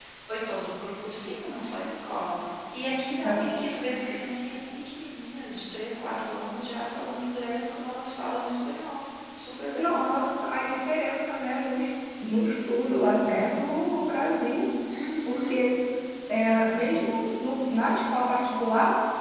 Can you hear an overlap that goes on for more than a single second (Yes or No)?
No